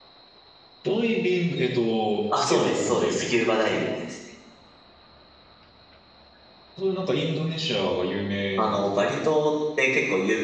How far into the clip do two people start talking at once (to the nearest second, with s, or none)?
2 s